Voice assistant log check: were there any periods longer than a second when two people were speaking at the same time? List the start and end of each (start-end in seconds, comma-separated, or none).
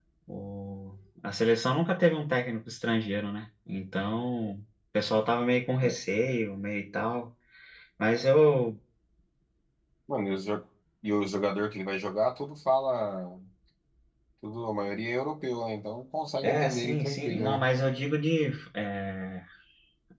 16.4-17.6